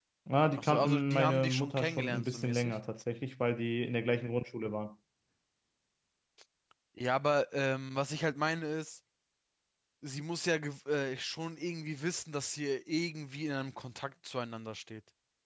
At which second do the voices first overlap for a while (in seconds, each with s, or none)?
0.5 s